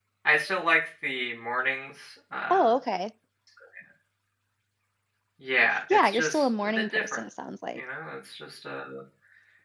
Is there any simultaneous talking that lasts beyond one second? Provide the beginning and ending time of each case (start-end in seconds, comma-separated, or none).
5.9-7.2